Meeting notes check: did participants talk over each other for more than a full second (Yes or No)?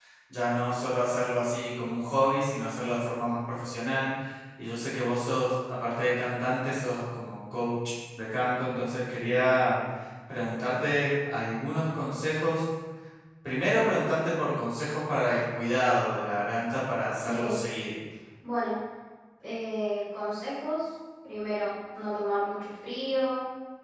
No